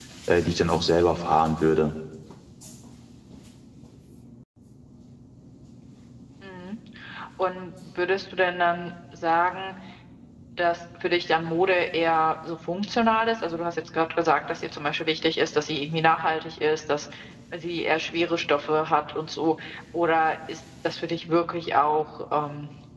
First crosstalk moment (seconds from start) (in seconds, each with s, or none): none